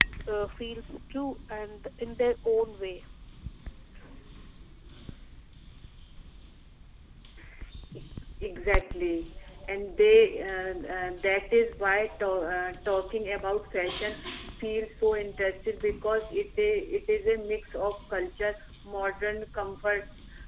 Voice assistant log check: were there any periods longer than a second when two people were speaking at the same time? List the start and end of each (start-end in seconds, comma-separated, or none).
none